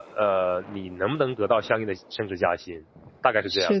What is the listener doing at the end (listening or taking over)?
taking over